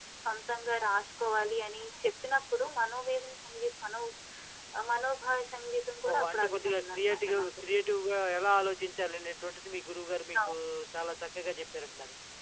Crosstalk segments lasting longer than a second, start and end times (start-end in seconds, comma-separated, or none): 6.1-7.5